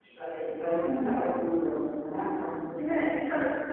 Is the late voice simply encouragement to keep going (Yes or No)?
No